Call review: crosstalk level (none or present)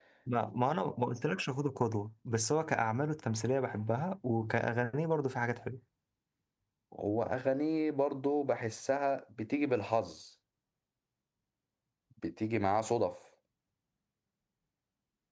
none